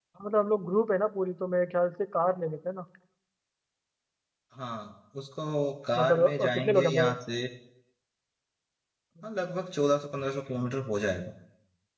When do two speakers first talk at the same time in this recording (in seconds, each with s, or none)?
6.0 s